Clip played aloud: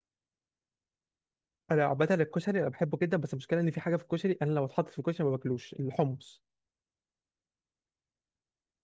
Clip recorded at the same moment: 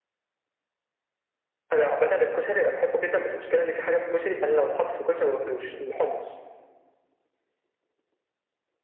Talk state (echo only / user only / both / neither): echo only